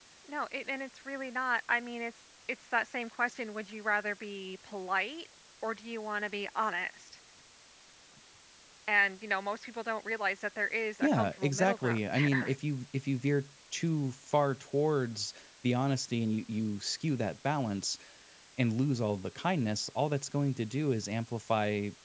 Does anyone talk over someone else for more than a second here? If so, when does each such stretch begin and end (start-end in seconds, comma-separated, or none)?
11.0-12.6